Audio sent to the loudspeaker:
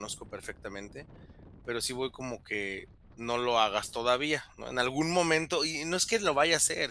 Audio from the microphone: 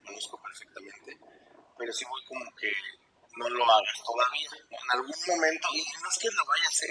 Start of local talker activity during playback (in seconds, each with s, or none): none